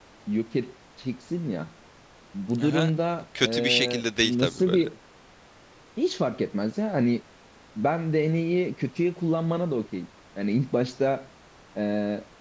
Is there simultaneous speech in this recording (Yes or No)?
Yes